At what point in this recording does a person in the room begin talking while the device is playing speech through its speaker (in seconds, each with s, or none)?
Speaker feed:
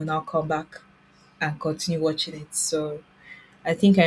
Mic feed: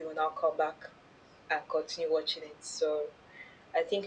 none